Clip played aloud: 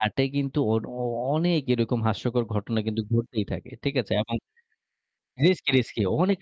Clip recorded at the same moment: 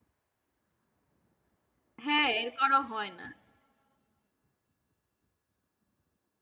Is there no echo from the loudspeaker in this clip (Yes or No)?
Yes